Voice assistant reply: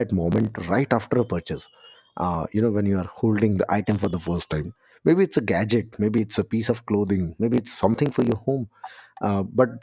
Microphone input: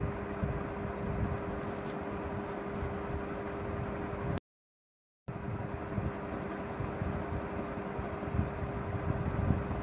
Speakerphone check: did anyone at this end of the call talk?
No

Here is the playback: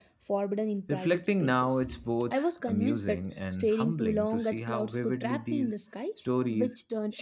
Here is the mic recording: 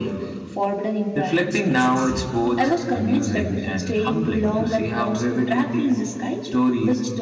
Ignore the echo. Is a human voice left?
No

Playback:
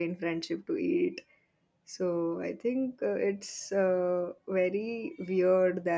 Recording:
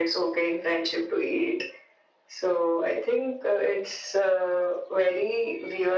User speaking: No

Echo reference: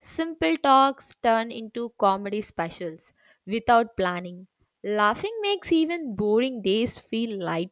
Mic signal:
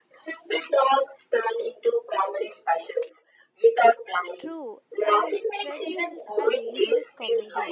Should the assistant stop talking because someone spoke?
Yes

